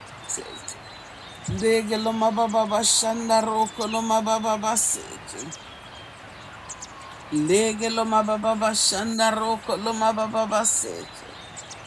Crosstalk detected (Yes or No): No